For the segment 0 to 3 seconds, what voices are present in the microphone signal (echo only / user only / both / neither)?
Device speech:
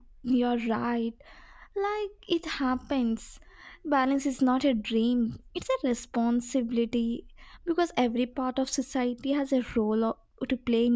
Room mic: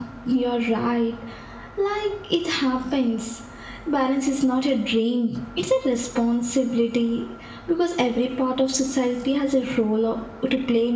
echo only